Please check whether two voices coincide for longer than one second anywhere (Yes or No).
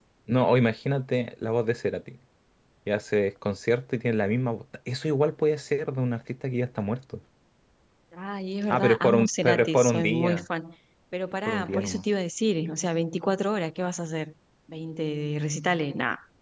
Yes